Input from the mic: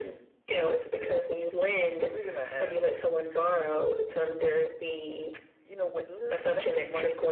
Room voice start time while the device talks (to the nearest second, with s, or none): none